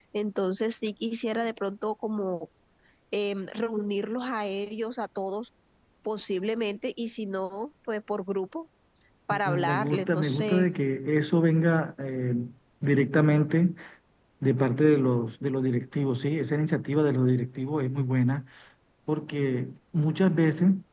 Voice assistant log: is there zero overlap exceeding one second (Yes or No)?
No